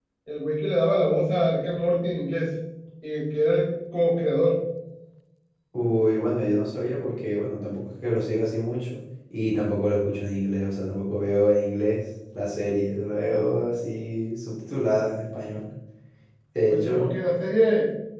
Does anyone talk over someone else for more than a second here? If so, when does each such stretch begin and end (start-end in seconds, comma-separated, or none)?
none